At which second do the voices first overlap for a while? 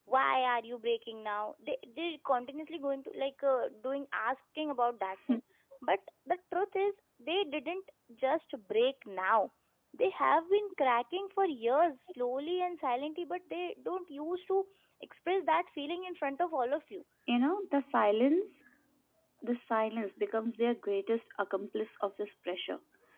none

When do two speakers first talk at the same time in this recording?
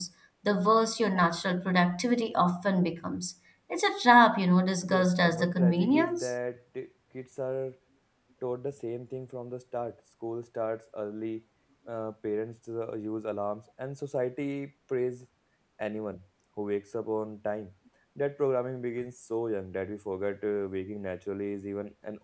5 s

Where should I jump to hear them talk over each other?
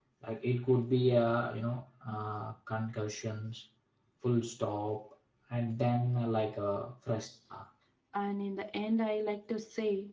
none

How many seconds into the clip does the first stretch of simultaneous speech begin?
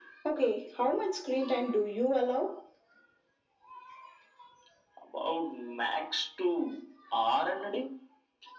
none

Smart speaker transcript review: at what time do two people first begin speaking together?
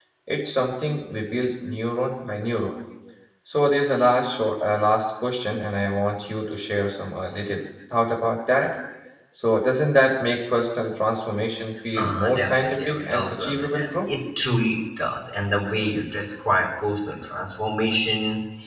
12 s

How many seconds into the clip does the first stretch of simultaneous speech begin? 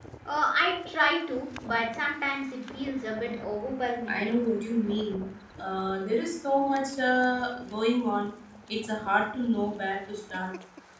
none

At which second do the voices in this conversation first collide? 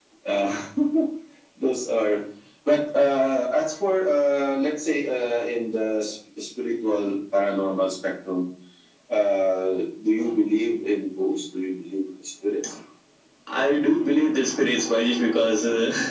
none

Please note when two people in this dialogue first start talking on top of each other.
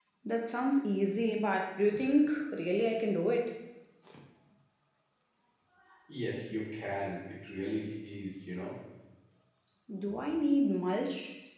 none

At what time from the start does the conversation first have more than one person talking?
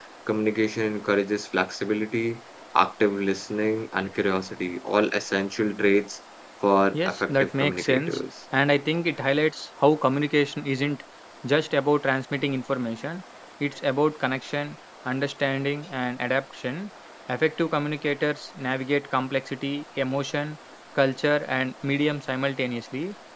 7 s

